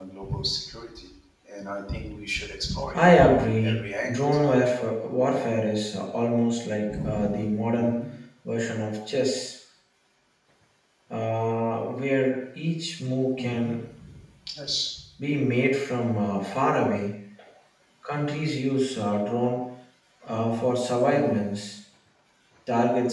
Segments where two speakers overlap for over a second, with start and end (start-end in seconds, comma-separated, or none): 2.9-4.6